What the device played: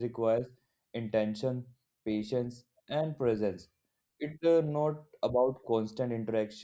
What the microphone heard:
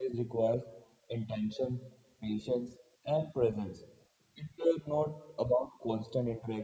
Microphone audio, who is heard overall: echo only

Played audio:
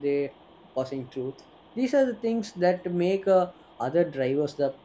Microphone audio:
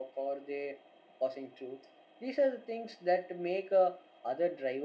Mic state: echo only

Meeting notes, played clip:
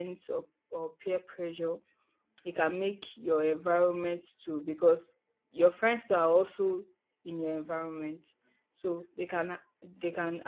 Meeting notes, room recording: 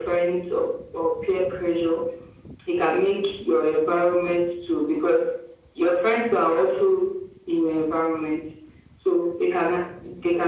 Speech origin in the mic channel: echo only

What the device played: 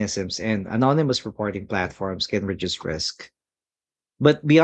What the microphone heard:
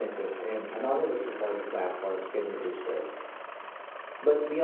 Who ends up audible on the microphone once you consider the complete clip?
echo only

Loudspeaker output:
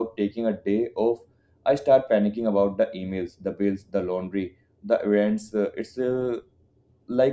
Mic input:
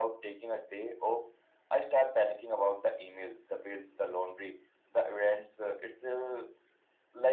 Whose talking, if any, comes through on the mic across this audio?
echo only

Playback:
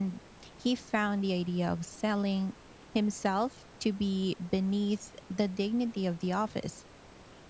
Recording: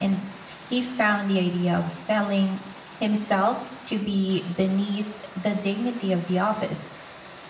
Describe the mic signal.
echo only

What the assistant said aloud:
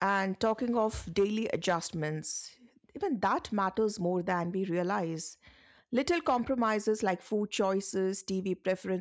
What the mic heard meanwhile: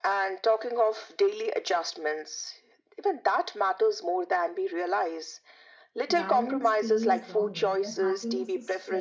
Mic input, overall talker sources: both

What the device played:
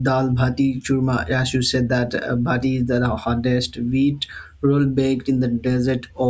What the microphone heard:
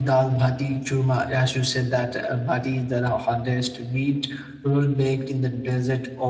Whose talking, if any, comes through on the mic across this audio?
echo only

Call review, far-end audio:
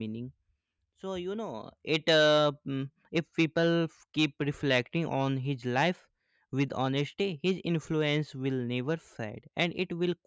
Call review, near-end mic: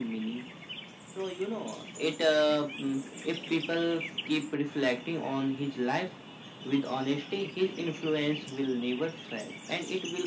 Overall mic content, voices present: echo only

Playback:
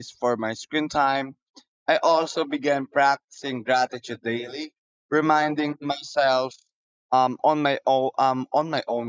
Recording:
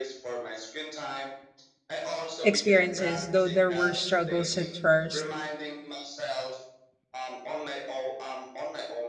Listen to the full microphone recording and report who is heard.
both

